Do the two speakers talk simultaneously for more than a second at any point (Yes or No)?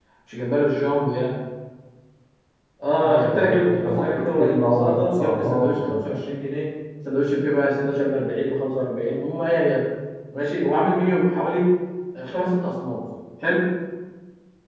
Yes